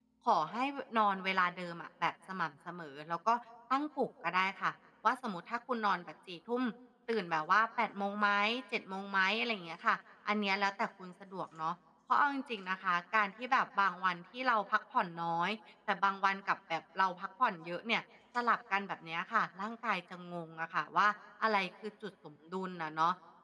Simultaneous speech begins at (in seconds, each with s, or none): none